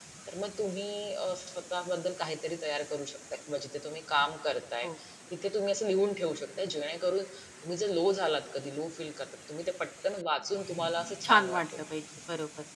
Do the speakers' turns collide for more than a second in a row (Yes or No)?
No